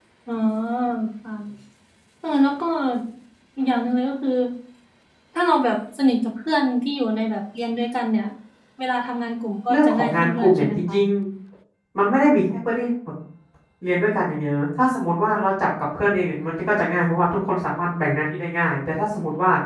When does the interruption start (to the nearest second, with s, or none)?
10 s